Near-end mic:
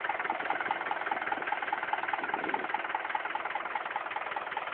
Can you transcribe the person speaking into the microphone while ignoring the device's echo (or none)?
none